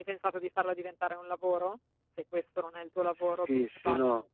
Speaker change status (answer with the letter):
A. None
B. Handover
B